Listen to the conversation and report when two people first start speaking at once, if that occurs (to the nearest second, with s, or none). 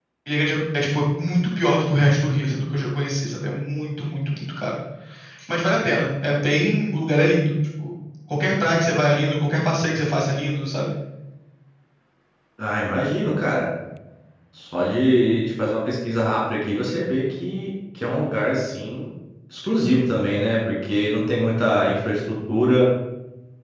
none